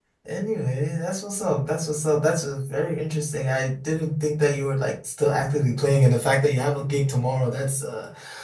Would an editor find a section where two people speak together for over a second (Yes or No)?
No